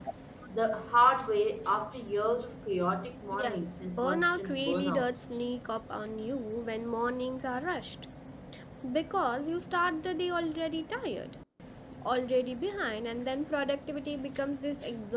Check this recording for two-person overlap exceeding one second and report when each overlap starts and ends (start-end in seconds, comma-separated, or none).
3.3-5.2